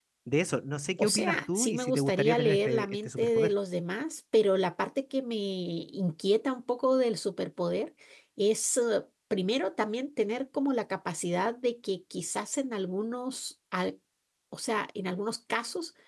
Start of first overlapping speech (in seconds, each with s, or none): 1.0 s